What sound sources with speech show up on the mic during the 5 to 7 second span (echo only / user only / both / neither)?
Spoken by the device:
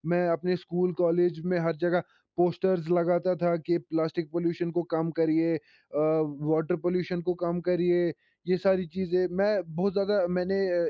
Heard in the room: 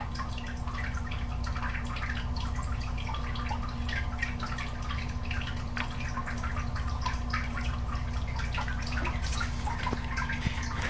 neither